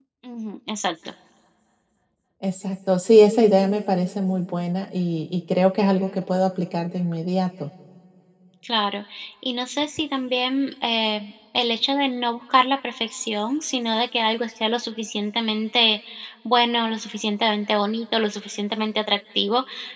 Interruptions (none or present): none